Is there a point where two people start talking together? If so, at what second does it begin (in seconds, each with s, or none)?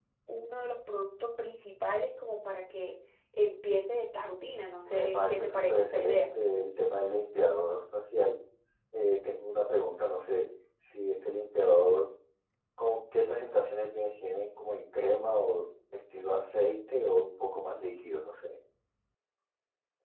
4.8 s